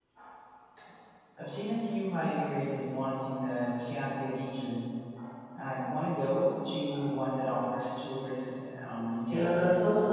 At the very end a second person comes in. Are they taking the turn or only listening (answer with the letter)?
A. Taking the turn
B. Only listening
A